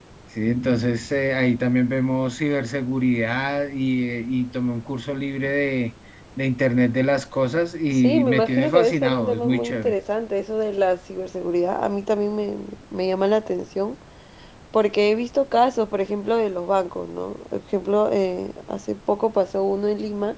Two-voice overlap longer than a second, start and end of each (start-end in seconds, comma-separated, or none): 7.9-9.9